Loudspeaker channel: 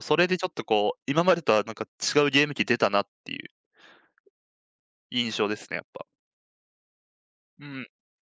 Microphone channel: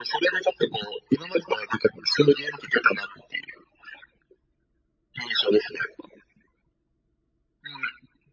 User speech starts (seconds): none

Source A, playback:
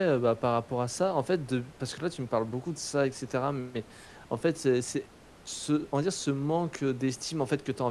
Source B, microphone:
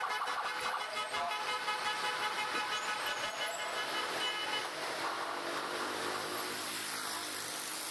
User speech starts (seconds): none

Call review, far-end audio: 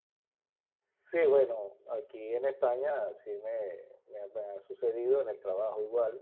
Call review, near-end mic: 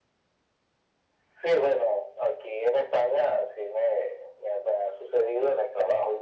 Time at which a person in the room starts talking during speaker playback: none

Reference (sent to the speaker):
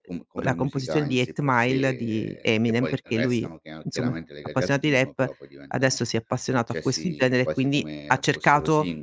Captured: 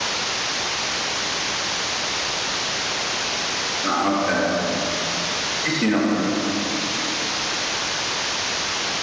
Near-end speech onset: 4 s

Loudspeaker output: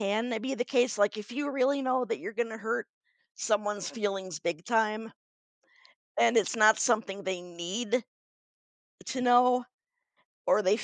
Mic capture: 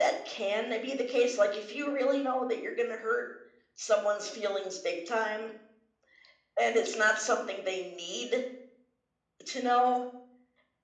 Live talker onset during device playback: none

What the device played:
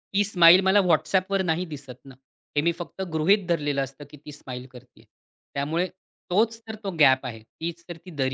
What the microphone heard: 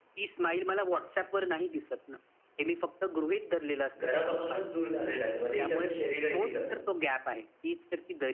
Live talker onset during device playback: 4 s

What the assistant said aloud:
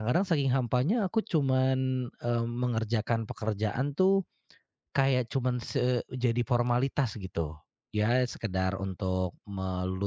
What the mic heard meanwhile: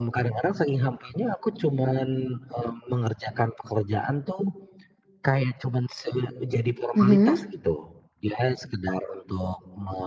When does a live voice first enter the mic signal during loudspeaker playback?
7 s

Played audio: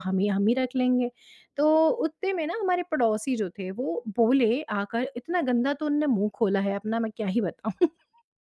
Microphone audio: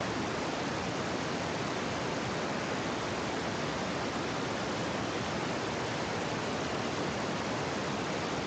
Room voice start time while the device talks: none

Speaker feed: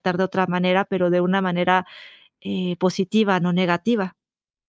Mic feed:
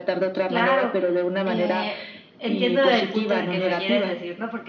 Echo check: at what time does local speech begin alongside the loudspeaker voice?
0 s

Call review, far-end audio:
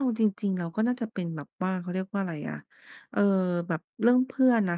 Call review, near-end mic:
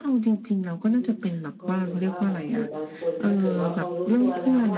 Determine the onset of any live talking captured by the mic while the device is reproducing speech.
1 s

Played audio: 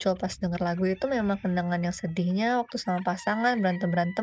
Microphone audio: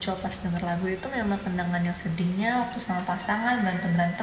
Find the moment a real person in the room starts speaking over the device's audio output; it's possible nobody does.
none

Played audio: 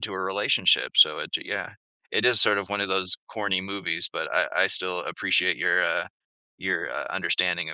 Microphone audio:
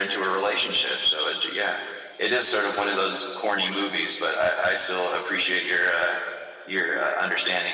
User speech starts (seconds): none

